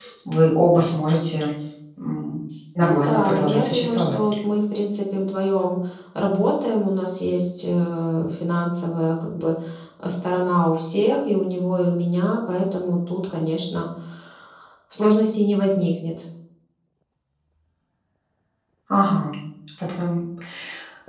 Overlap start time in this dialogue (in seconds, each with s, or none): 2.8 s